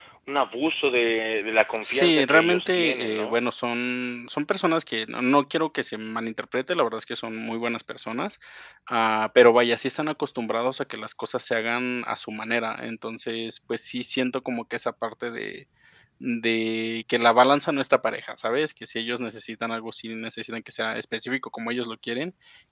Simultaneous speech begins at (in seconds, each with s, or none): 1.8 s